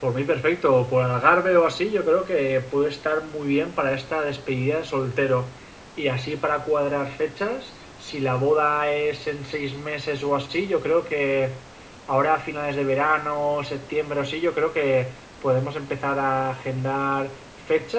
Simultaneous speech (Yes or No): No